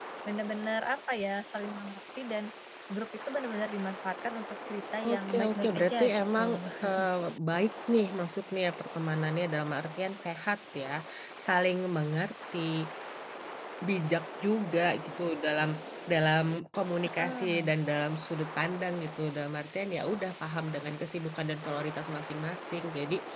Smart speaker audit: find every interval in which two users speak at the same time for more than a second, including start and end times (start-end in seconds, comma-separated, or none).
5.1-6.4